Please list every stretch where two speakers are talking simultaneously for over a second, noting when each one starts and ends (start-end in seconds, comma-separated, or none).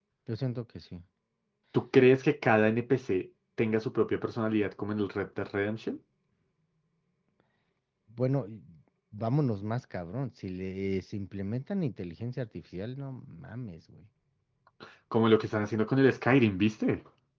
none